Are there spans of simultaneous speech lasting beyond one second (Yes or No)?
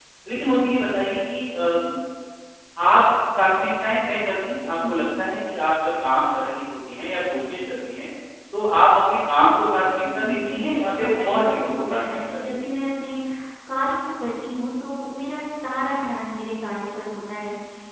Yes